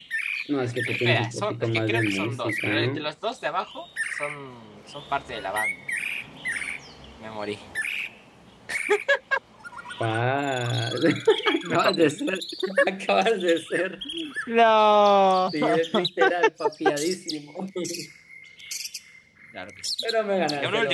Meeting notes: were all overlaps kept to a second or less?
No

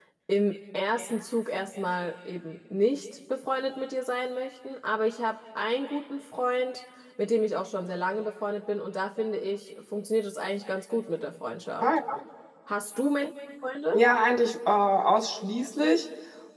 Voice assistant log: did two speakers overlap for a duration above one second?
No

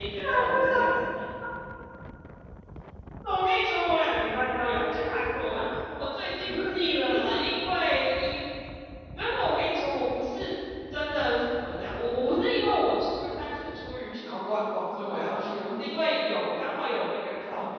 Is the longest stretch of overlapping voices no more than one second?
No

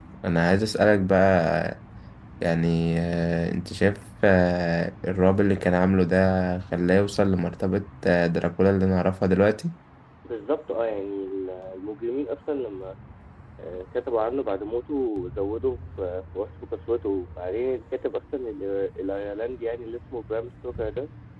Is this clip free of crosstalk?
Yes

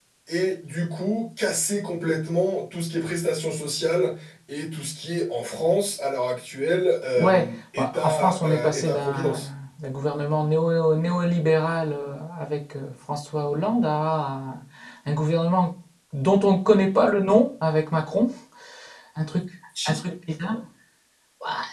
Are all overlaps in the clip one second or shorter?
No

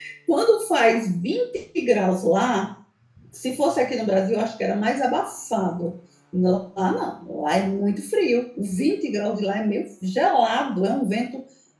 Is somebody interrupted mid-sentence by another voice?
No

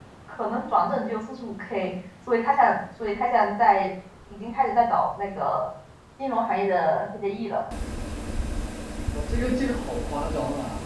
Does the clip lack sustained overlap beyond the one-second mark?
Yes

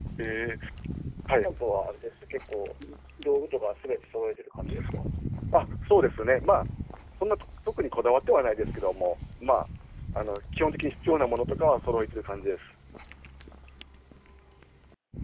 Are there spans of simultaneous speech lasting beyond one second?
No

